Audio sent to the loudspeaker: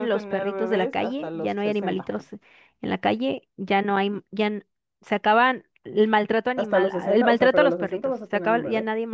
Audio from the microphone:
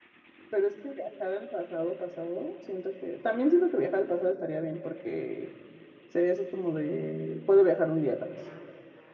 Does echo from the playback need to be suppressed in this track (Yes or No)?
No